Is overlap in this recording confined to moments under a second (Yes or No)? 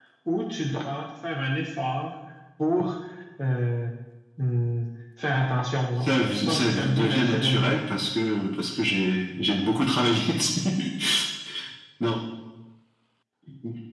No